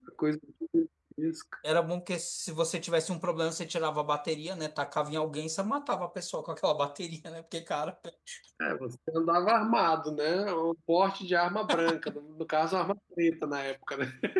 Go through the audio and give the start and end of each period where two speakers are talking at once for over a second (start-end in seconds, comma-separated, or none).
none